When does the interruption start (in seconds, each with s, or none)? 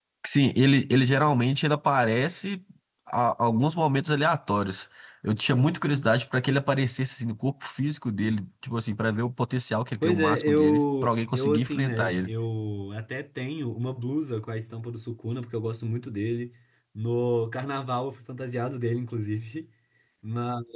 10.0 s